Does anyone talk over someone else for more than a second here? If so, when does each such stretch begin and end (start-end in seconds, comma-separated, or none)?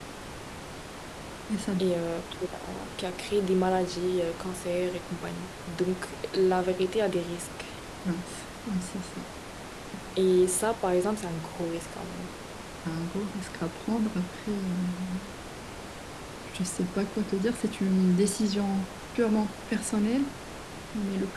none